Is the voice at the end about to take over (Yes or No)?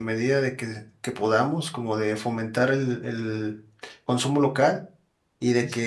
No